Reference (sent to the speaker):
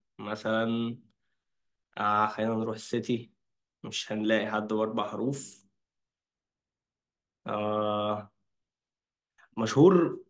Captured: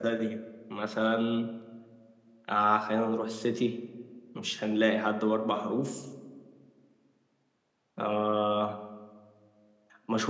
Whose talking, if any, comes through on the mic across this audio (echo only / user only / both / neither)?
echo only